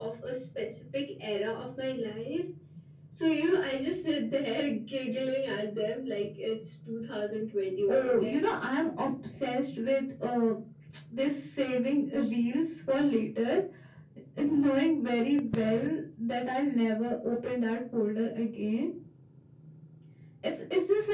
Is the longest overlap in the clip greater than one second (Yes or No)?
No